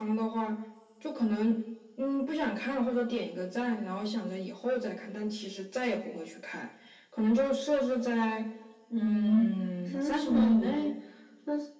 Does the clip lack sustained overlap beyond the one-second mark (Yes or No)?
No